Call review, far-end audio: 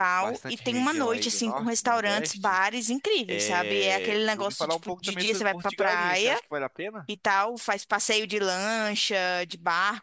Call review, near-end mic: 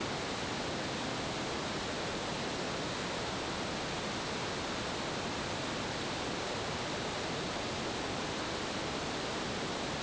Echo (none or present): none